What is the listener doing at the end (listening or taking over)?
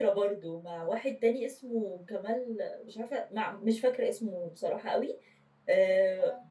listening